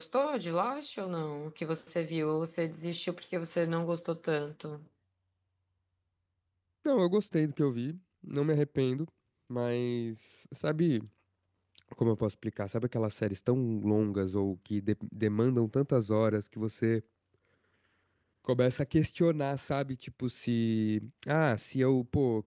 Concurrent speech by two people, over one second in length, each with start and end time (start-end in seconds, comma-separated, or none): none